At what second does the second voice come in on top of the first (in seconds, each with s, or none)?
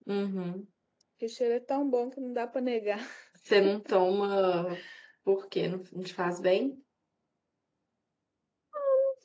none